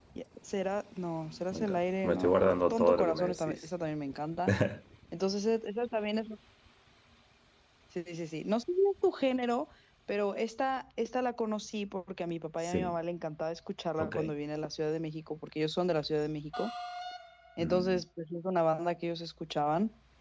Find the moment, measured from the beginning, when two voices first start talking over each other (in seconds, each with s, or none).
1.5 s